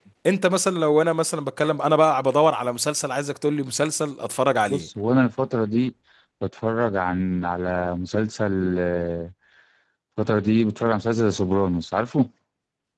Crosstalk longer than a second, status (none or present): none